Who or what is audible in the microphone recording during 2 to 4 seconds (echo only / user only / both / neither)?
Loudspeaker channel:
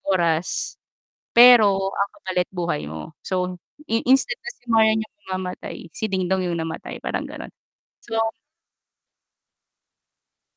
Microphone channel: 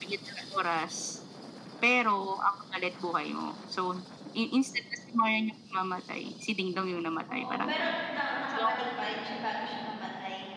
echo only